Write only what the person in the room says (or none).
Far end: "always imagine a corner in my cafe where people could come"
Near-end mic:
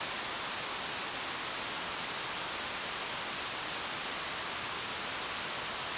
none